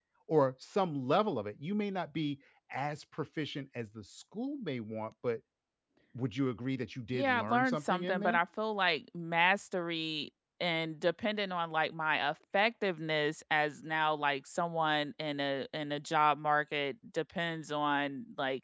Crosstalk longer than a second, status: present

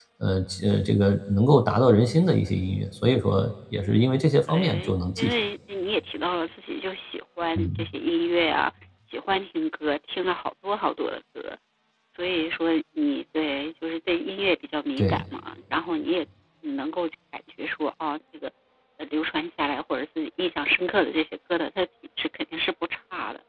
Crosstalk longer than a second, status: present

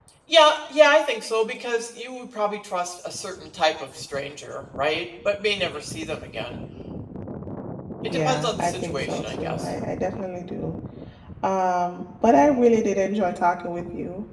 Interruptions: present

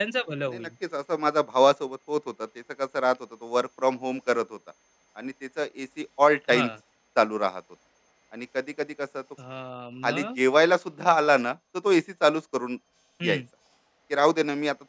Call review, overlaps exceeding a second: none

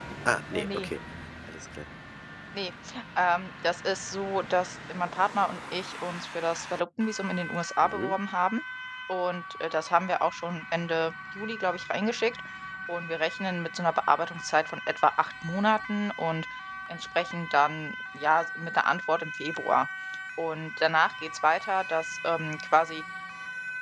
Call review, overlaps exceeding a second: none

